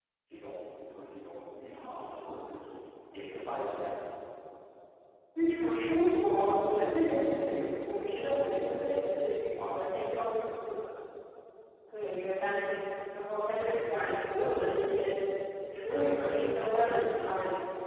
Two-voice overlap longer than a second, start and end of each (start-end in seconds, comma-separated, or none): none